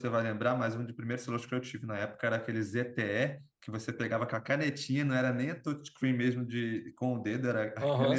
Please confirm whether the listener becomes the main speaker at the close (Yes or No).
Yes